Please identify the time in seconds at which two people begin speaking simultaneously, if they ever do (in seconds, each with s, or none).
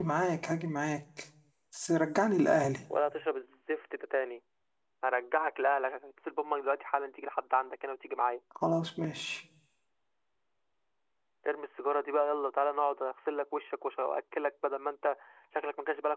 none